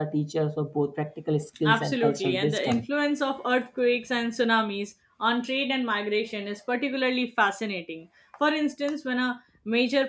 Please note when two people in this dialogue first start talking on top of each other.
2 s

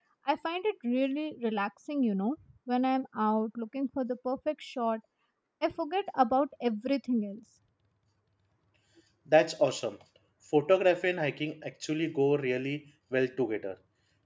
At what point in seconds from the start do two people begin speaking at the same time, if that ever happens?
none

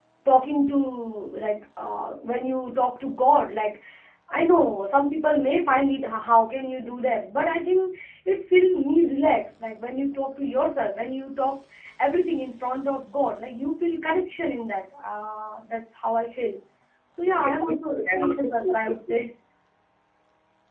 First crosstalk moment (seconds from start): 17 s

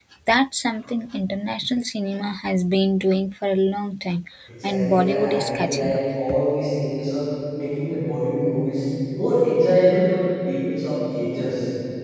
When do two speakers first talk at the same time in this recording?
5 s

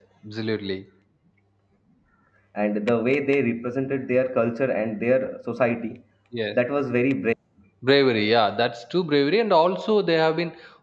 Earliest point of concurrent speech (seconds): none

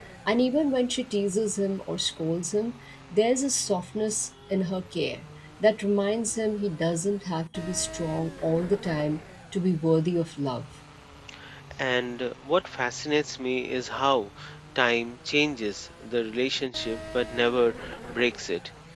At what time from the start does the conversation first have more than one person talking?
none

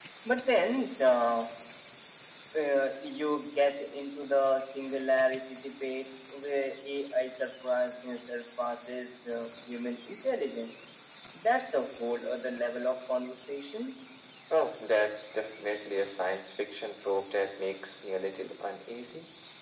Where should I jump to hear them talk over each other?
none

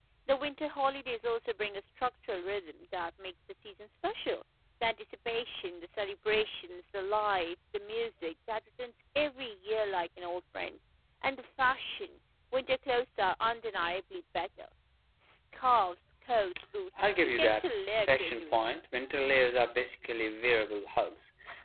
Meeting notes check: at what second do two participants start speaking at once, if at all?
17 s

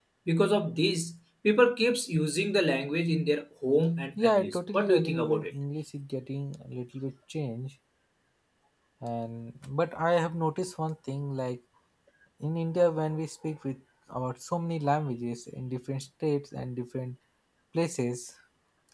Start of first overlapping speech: 4 s

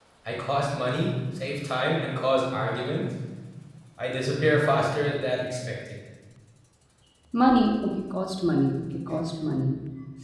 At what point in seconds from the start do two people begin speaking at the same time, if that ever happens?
none

